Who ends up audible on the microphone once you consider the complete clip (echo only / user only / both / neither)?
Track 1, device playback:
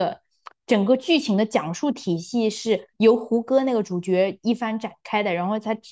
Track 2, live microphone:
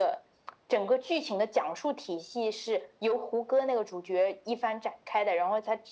echo only